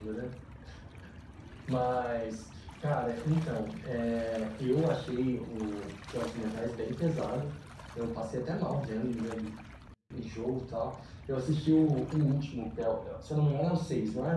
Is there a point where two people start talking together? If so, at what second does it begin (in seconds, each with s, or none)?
none